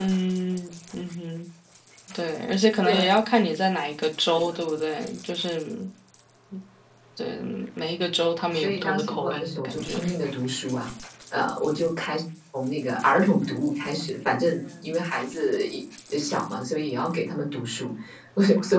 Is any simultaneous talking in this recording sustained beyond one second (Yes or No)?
Yes